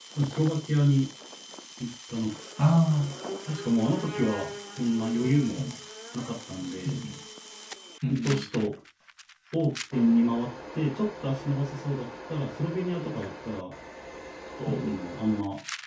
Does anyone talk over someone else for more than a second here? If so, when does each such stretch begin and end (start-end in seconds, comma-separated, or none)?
none